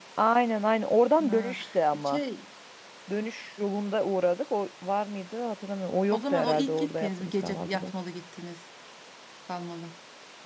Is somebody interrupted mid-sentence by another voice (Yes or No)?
Yes